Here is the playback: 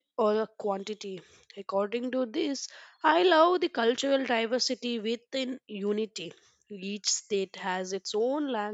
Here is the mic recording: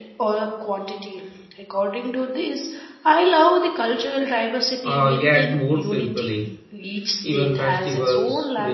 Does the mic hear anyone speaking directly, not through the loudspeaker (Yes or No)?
Yes